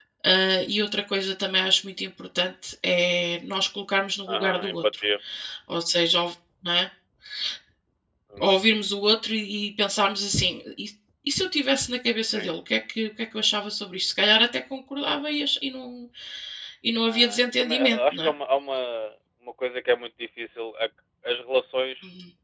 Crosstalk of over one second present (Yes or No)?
Yes